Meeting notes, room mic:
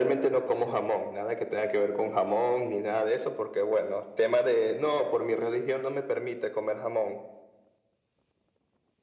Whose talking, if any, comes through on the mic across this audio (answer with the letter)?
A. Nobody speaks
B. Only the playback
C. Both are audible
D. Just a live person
B